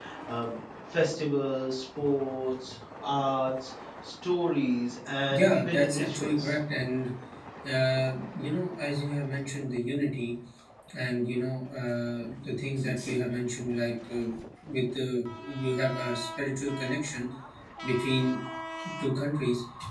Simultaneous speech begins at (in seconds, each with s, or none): 5.3 s